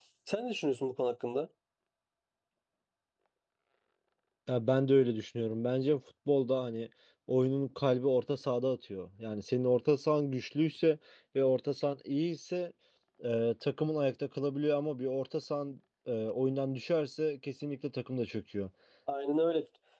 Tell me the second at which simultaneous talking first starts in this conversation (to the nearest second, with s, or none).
none